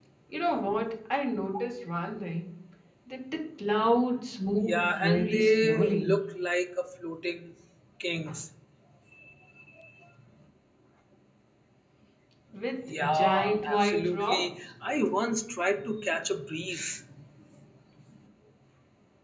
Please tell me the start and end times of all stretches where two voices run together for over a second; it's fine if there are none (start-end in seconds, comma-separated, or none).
4.6-6.2, 13.0-14.5